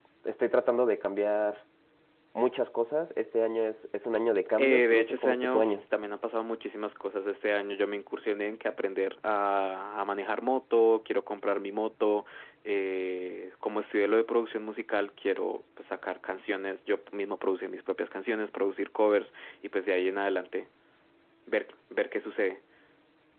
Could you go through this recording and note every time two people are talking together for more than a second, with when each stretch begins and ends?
4.6-5.8

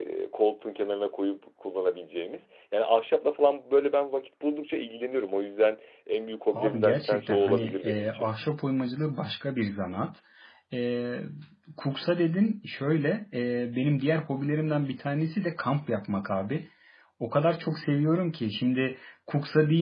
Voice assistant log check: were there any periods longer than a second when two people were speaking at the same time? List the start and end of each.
6.5-8.3

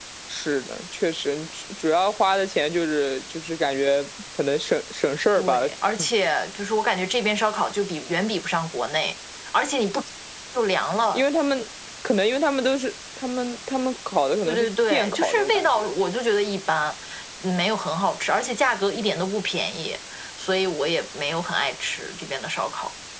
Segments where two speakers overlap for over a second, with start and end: 14.4-15.9

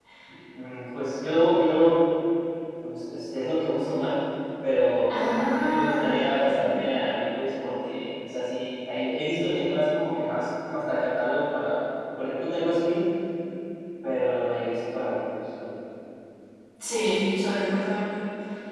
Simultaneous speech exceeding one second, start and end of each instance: 5.2-7.0

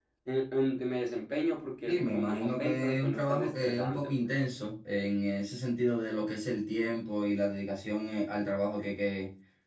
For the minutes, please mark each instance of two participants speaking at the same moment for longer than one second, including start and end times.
1.9-4.1

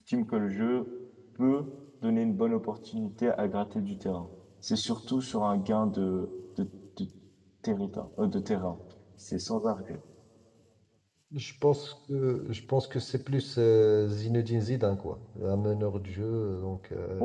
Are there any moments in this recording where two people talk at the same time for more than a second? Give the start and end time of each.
none

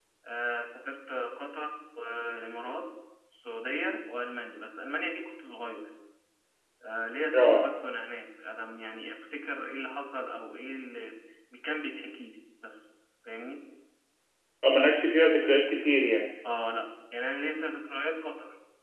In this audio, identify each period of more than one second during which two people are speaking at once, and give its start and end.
none

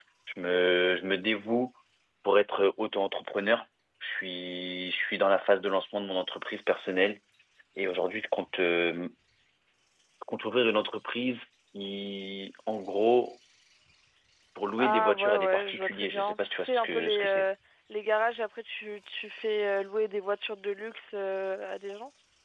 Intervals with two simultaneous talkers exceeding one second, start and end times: 14.8-17.4

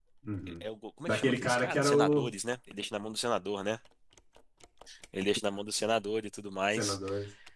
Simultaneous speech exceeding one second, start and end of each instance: 1.1-2.3

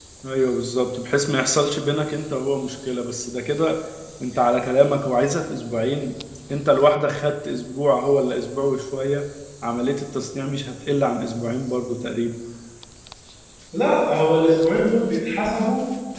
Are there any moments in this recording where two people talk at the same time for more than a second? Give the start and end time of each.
none

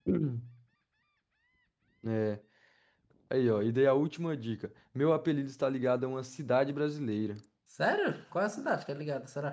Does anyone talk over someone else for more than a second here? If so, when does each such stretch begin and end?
none

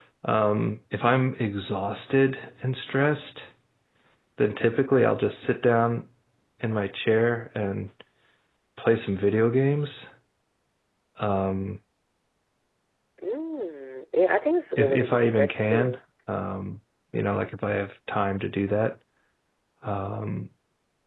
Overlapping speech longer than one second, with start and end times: 14.8-16.0

